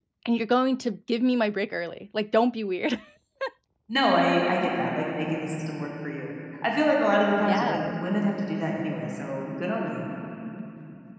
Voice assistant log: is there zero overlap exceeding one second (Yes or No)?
Yes